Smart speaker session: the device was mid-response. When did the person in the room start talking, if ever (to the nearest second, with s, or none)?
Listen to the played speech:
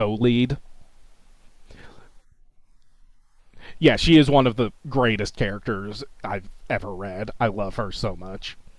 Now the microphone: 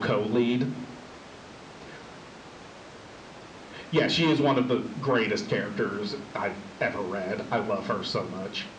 none